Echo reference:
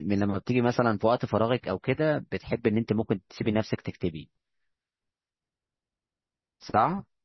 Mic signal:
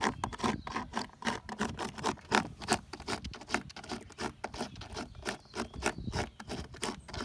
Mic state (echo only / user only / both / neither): neither